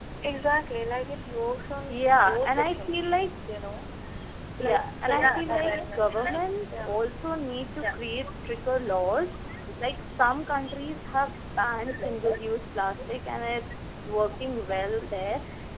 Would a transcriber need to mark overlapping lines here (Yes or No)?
Yes